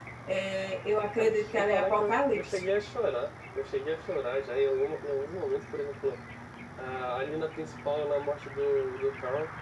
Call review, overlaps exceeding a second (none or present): present